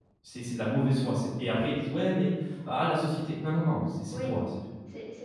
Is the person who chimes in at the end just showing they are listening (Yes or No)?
No